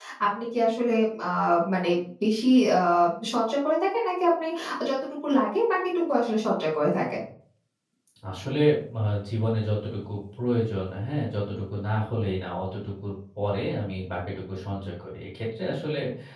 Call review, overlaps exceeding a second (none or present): none